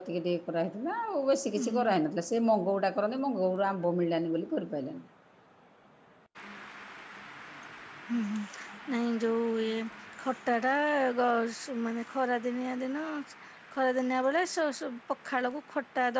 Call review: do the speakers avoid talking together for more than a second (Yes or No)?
Yes